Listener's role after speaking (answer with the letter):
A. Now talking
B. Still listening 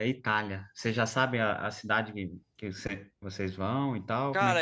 A